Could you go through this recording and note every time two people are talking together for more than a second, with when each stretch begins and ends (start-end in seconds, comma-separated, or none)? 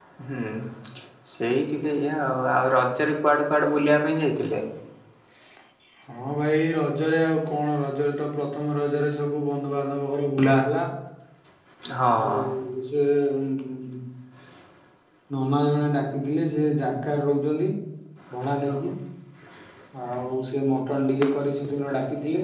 none